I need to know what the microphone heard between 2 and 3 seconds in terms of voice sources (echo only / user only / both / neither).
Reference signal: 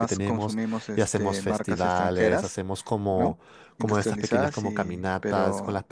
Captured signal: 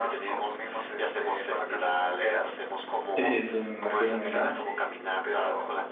echo only